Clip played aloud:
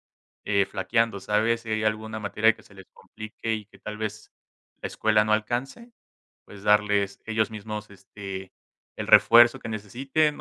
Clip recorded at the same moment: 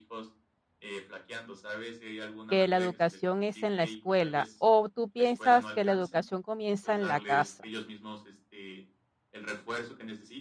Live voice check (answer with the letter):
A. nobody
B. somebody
B